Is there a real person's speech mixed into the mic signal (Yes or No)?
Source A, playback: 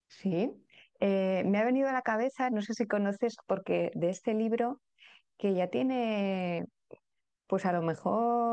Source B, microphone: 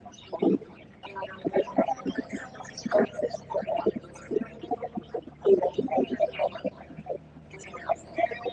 No